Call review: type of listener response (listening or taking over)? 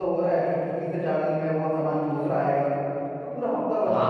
taking over